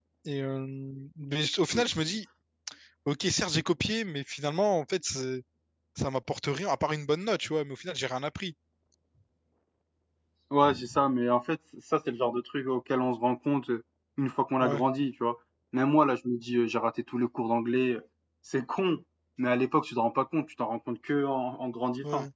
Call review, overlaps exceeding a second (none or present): none